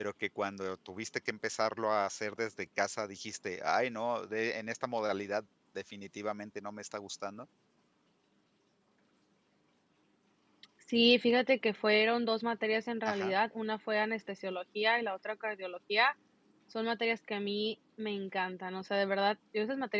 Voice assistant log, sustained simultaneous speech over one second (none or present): none